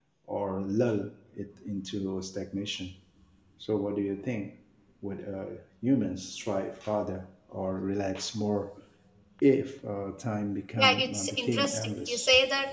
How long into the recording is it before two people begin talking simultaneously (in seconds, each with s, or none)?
10.8 s